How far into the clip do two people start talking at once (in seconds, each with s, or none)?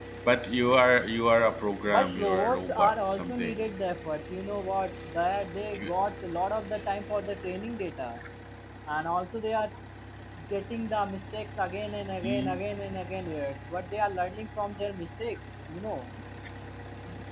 1.9 s